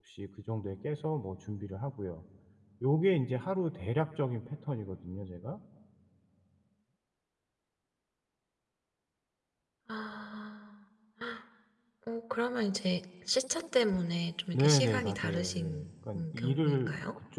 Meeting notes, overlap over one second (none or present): present